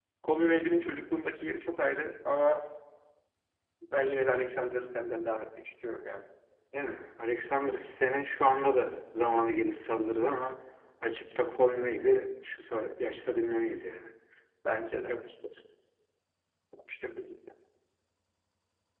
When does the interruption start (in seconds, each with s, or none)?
none